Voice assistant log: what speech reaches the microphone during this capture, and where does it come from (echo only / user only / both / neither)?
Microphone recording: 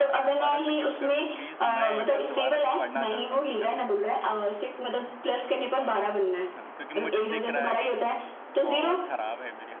both